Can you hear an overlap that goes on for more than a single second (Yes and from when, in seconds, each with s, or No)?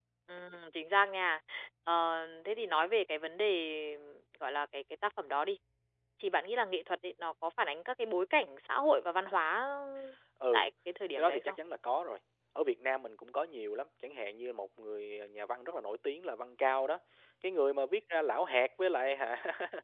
No